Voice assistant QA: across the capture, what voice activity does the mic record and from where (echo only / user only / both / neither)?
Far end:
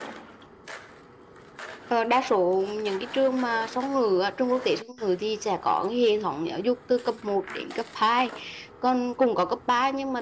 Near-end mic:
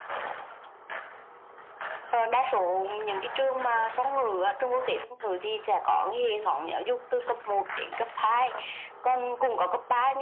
echo only